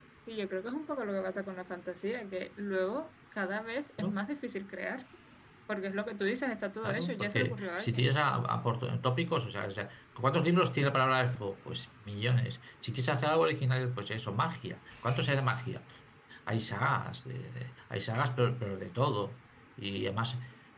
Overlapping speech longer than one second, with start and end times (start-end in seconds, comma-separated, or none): 6.8-8.1